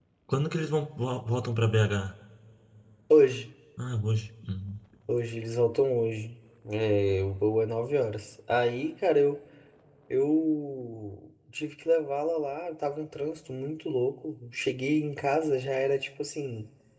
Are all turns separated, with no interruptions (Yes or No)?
Yes